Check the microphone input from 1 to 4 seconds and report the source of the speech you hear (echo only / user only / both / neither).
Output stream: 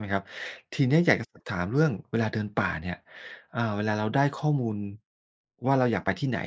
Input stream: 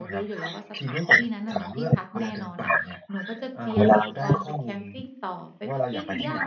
both